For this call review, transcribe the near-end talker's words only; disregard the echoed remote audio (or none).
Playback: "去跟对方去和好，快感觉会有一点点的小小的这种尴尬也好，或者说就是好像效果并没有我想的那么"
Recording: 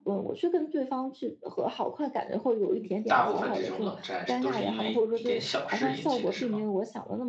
大部分这种冷战是都是因为一点小事引起的，是吗？